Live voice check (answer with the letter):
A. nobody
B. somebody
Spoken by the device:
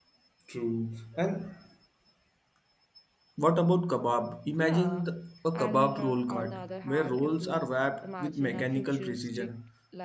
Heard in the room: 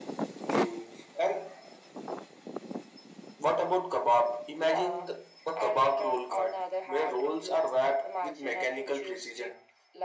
A